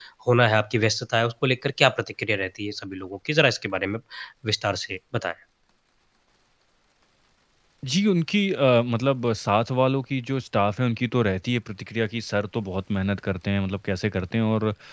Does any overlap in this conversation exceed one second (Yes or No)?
No